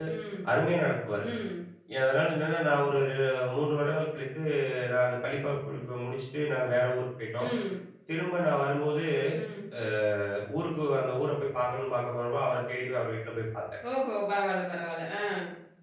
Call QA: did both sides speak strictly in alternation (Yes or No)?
Yes